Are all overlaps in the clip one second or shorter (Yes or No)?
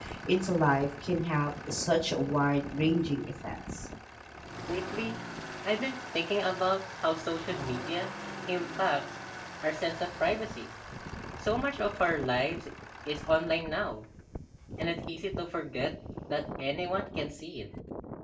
Yes